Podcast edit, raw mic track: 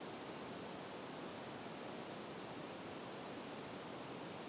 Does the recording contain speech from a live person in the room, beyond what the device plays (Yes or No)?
No